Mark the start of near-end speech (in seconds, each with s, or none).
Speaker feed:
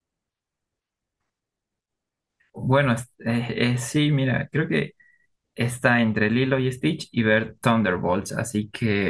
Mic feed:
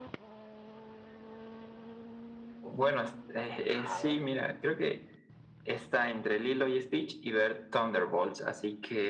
3.7 s